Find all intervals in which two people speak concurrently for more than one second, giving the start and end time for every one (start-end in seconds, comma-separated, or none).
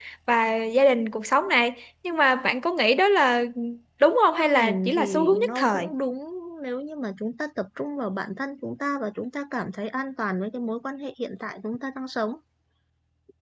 4.3-5.8